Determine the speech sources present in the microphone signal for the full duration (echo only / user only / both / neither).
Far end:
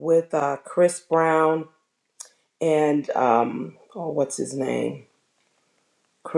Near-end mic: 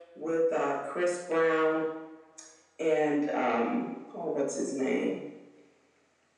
echo only